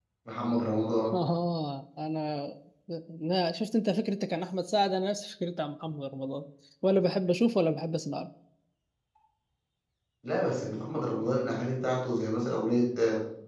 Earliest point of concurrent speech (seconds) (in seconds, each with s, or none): none